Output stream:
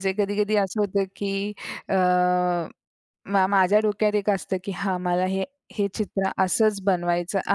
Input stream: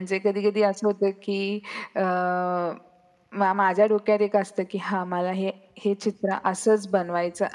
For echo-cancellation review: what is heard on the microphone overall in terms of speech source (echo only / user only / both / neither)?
echo only